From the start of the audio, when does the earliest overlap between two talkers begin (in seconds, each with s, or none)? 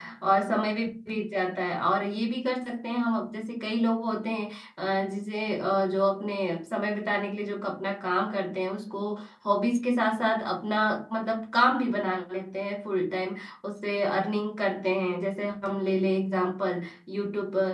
none